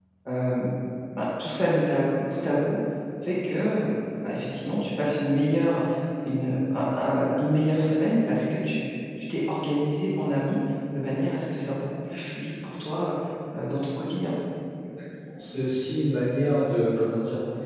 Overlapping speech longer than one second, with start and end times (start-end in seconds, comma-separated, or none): none